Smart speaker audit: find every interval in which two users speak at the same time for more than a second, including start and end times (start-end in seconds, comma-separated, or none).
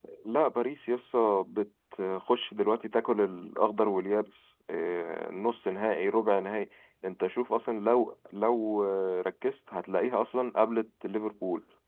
none